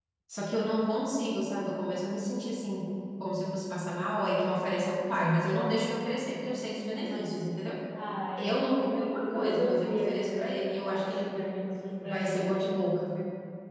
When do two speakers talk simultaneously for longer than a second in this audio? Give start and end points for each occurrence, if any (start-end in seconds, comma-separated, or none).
8.4-11.4